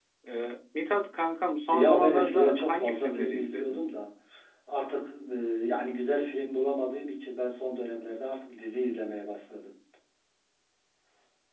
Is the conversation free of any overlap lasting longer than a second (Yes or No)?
No